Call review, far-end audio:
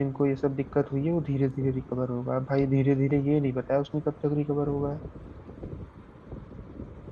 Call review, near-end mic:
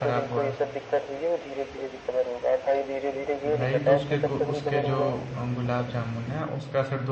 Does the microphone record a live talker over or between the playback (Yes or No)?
Yes